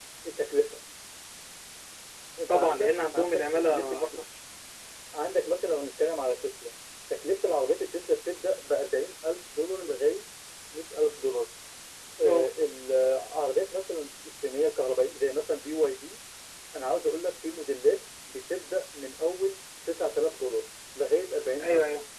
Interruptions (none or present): present